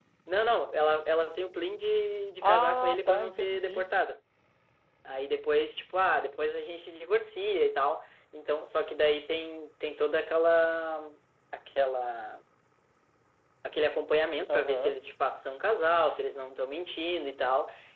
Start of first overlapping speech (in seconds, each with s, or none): 2.4 s